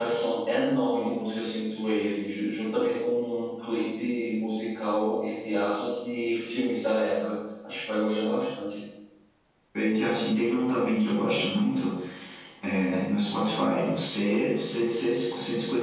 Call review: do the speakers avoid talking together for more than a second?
Yes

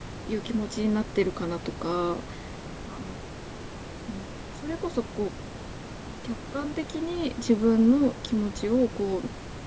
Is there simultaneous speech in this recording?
No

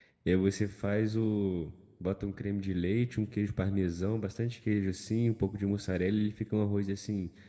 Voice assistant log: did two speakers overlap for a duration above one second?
No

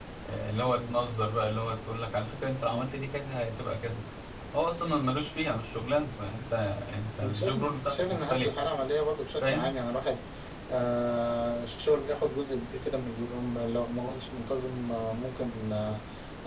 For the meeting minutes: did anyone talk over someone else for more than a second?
Yes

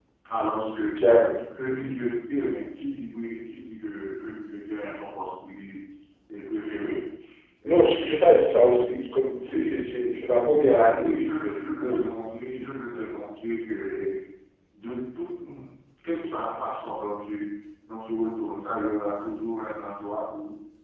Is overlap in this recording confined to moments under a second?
Yes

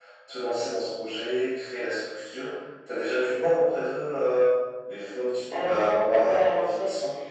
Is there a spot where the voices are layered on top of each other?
Yes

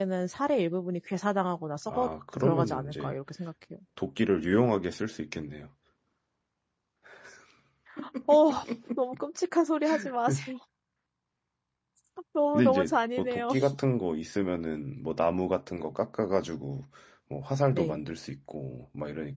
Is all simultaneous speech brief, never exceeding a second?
No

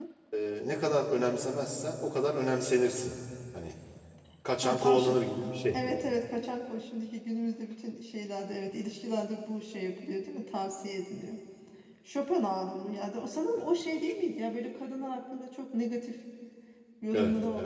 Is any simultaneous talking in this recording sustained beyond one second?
No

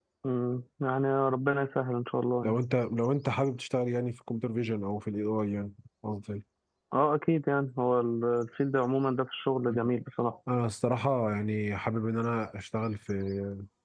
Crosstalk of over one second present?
No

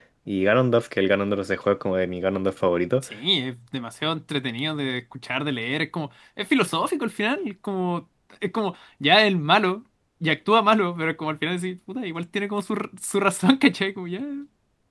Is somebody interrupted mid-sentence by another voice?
No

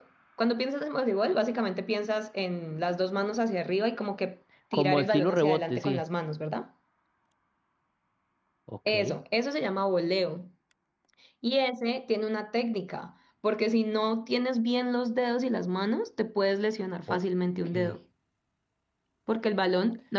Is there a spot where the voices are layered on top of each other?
Yes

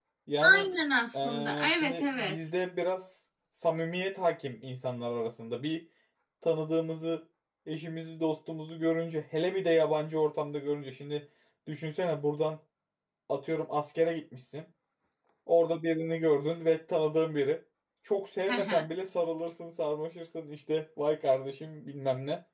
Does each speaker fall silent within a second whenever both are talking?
No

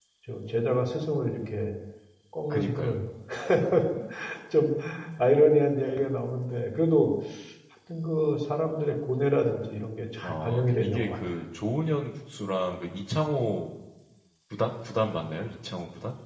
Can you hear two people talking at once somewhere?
Yes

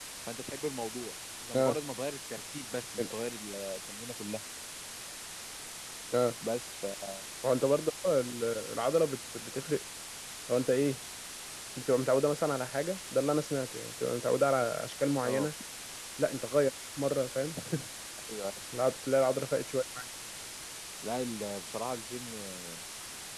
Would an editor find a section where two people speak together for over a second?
No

